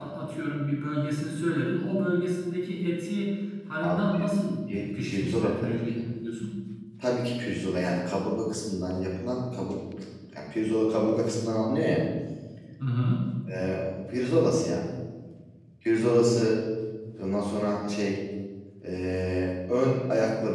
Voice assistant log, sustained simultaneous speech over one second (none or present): present